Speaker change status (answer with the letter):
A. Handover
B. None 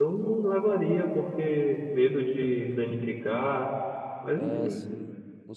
A